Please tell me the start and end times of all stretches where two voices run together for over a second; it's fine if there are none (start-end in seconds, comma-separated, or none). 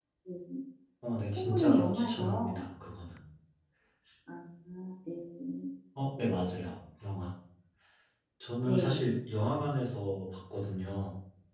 1.3-2.6